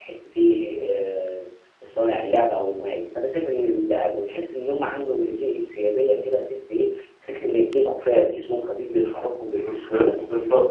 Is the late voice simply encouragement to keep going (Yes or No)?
No